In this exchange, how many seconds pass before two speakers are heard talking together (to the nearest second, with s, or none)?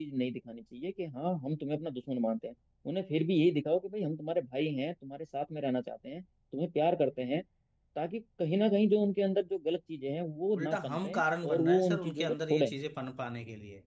11 s